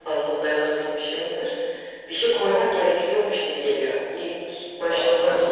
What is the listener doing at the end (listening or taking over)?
listening